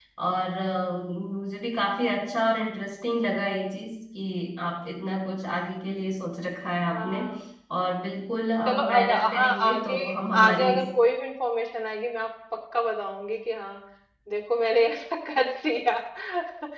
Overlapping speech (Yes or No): Yes